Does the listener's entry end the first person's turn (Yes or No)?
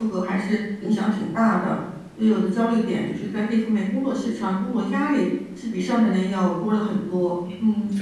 Yes